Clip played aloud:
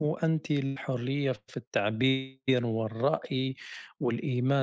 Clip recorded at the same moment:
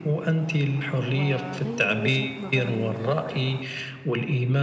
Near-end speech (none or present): present